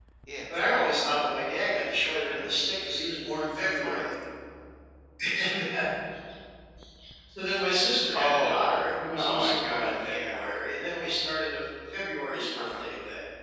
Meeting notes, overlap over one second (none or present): present